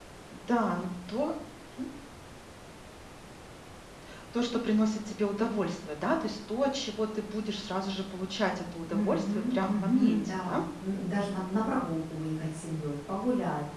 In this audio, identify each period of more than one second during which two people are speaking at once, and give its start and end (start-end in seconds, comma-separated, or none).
8.9-10.6